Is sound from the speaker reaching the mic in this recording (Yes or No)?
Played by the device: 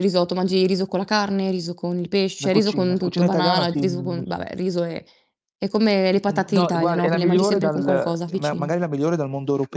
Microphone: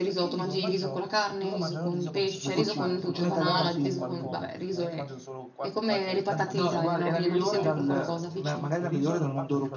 Yes